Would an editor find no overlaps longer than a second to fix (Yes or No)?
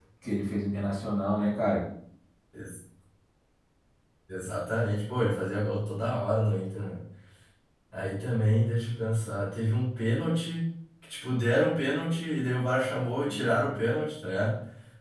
Yes